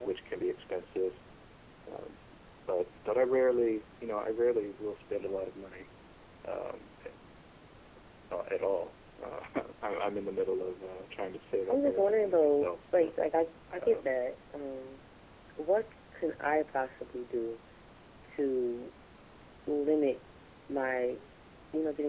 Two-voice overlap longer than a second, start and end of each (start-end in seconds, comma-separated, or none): 11.6-13.1